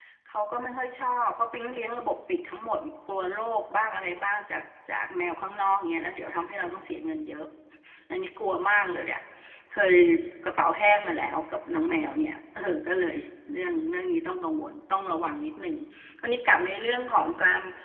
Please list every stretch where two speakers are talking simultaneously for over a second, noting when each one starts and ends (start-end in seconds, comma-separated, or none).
none